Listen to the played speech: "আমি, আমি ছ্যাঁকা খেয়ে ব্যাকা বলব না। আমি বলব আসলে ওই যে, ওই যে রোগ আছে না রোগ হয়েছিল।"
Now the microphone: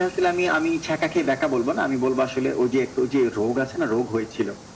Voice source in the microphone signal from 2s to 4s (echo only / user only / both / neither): echo only